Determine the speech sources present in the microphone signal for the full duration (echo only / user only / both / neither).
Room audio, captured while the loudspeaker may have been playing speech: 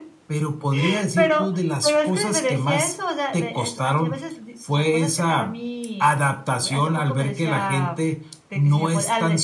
echo only